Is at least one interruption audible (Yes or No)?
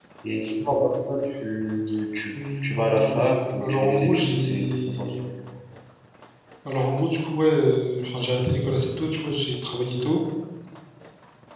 Yes